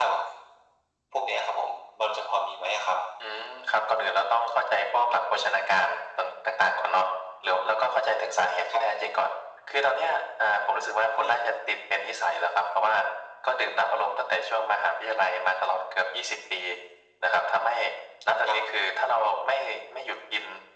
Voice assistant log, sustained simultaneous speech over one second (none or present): none